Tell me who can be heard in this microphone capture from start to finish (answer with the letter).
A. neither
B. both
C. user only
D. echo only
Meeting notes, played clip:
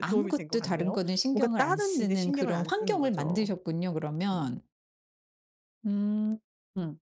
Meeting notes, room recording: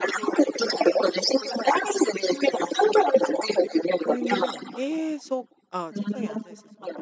B